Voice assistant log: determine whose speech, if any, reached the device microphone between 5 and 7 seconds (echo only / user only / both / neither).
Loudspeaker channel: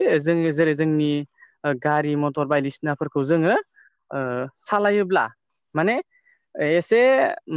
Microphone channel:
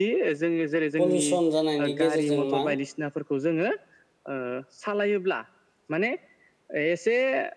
echo only